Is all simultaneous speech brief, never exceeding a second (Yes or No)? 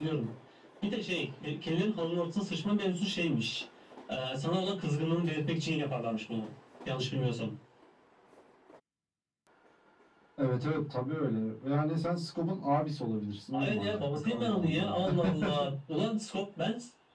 No